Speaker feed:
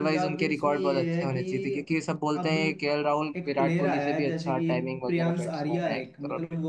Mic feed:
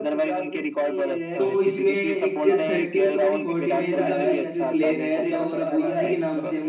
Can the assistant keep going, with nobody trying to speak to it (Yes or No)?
No